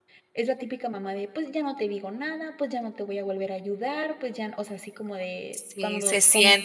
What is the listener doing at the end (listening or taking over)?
taking over